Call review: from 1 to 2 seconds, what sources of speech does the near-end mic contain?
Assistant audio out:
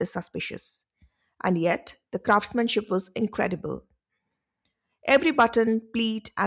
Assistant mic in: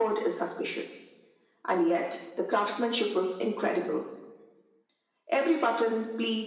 echo only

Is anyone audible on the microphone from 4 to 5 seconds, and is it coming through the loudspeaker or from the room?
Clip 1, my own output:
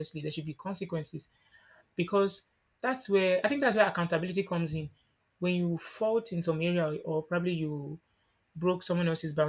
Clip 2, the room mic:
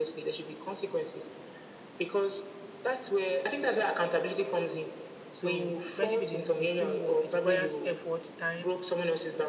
echo only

